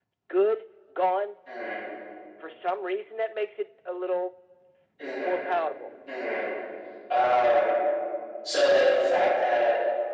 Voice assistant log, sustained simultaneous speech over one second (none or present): none